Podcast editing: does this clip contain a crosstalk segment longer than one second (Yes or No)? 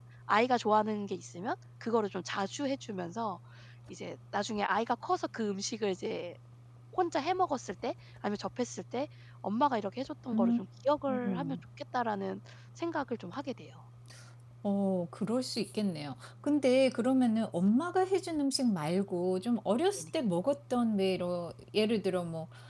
No